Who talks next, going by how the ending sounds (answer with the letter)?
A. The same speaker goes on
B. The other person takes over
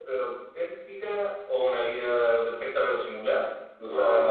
B